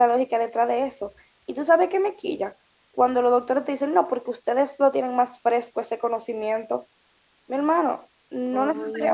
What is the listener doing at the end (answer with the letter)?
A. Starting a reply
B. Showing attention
B